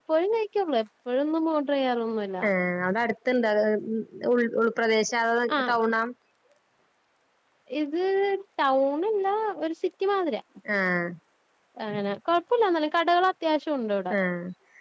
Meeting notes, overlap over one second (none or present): none